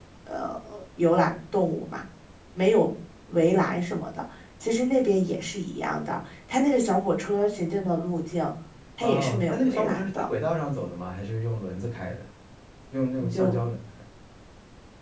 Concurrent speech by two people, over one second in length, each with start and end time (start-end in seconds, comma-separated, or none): 9.0-10.3